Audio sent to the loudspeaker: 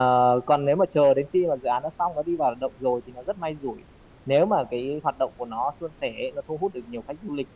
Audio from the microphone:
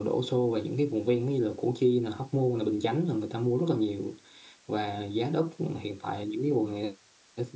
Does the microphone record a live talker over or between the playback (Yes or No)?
Yes